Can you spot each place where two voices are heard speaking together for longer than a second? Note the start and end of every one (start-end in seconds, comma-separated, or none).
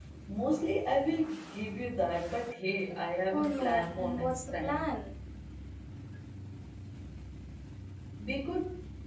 3.3-4.8